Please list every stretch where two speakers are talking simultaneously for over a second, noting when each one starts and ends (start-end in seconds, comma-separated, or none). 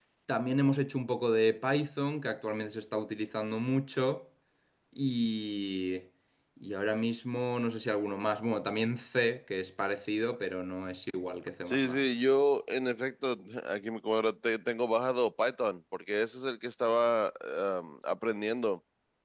none